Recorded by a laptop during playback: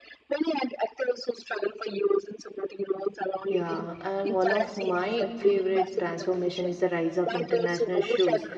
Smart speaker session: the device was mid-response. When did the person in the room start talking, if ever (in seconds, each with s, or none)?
3.5 s